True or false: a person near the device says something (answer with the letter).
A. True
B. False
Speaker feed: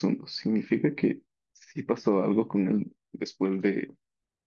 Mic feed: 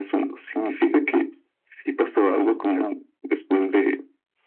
B